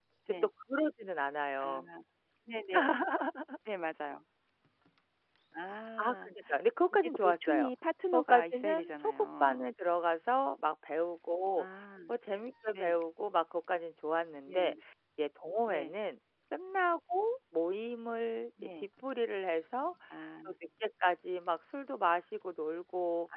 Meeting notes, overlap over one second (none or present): present